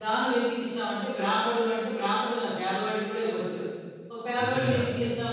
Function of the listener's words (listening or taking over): listening